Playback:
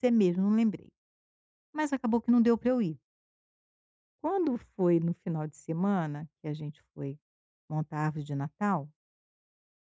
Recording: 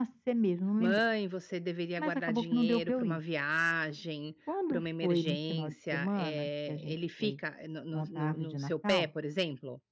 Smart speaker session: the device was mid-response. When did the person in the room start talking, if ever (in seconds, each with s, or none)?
0.8 s